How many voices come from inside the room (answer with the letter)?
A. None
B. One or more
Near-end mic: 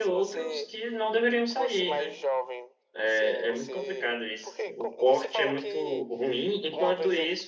B